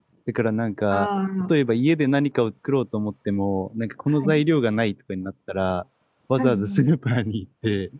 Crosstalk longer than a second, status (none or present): none